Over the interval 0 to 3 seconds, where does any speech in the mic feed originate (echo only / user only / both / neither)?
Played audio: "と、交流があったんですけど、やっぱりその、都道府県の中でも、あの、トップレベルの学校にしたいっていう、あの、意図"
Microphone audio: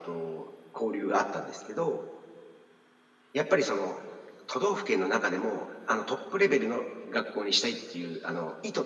echo only